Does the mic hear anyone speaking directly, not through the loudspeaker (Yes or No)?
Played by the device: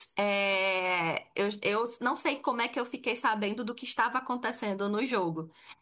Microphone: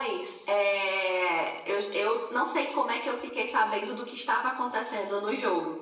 No